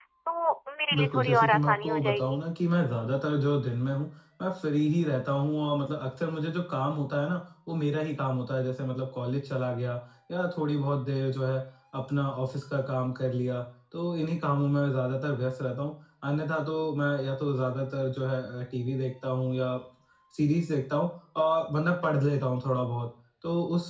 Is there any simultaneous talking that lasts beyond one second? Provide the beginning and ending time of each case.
1.0-2.4

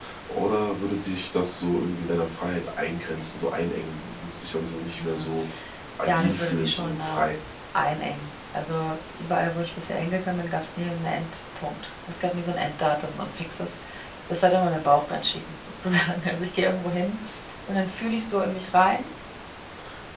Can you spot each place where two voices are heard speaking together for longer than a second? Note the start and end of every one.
6.0-7.2

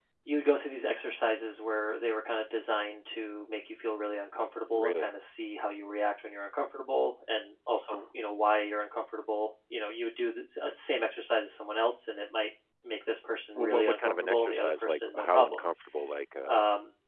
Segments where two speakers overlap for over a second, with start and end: 13.6-15.6

